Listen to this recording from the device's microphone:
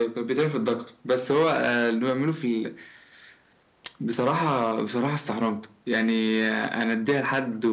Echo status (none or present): present